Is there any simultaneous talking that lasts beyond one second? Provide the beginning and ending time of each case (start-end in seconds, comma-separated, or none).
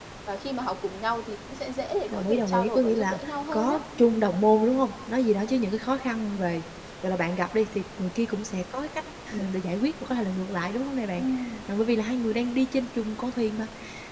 2.1-3.8